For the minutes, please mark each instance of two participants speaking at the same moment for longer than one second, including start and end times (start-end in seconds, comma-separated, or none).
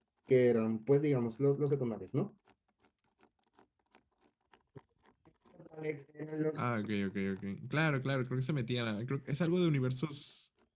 none